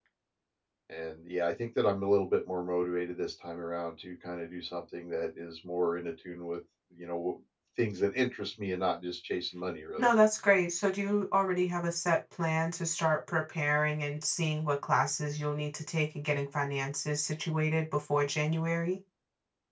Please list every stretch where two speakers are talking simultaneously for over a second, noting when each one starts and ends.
none

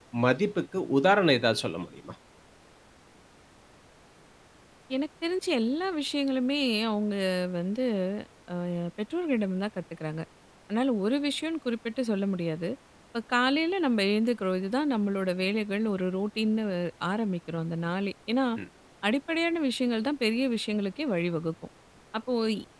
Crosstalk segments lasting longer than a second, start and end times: none

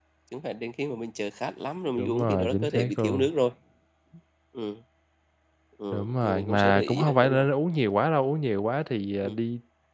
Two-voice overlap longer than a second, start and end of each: 2.0-3.2, 5.9-7.4

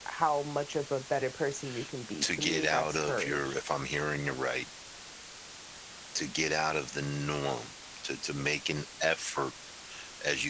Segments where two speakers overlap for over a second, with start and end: 2.2-3.5

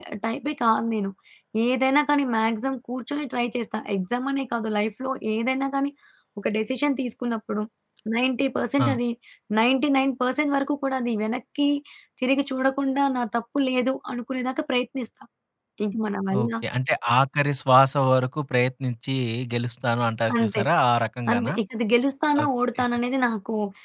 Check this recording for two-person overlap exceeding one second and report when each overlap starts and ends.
none

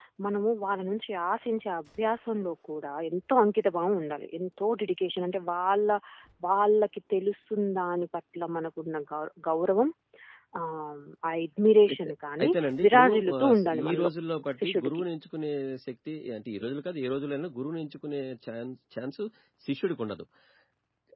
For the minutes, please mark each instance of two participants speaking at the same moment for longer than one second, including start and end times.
12.8-14.1

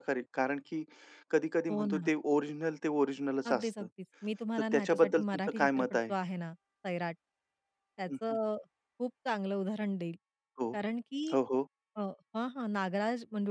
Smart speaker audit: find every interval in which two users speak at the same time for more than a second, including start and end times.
4.7-6.1

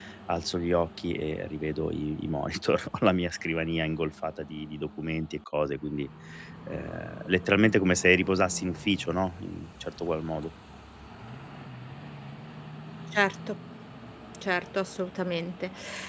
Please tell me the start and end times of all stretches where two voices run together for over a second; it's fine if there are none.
none

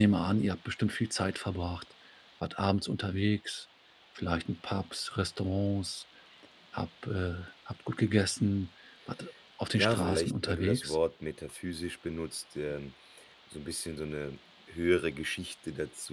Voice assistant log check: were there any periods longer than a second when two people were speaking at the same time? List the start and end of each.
9.8-11.0

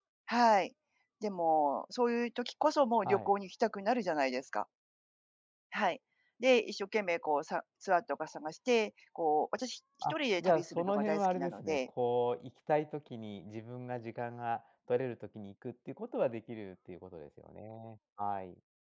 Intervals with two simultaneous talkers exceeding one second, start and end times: 10.0-11.8

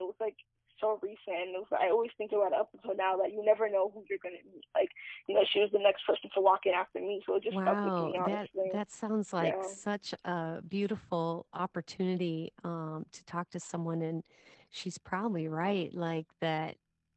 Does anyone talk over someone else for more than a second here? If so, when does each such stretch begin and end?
7.5-8.8

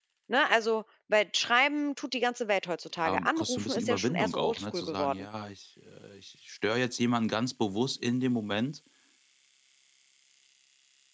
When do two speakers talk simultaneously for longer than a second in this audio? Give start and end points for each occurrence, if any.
3.0-5.2

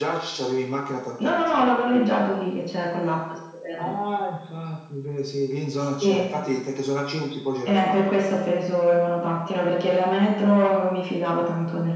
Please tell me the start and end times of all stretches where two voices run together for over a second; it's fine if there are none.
none

